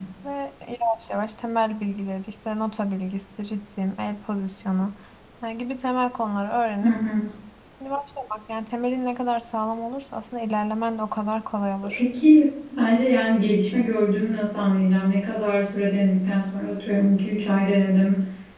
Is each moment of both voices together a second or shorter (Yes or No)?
Yes